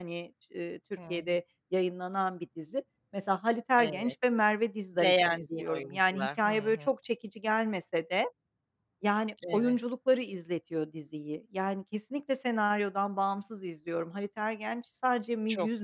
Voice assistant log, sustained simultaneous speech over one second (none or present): present